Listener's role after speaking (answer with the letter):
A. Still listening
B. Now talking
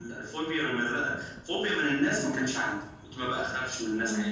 A